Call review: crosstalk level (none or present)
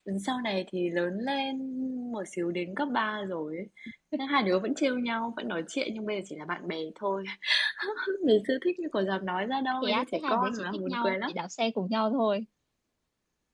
present